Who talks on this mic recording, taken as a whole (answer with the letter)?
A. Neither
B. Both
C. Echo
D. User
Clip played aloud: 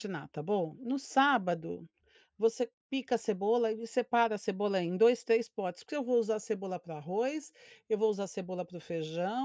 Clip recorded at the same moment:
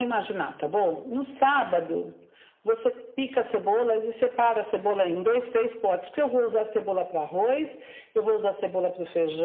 C